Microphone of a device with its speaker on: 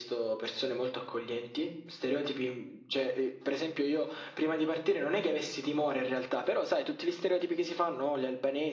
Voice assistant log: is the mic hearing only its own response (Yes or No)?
Yes